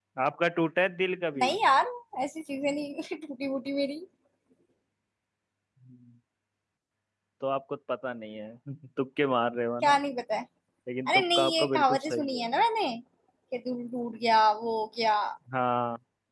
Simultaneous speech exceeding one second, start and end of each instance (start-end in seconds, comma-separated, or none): 11.1-12.4